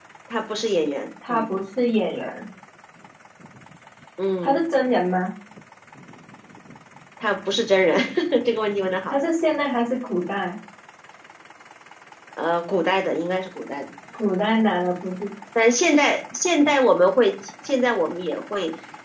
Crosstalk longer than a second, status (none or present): none